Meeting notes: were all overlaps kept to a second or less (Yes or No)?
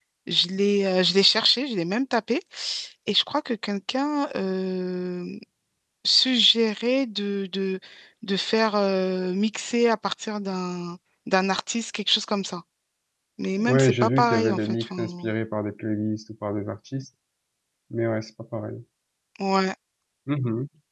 No